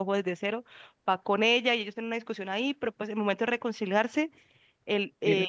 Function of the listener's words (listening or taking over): listening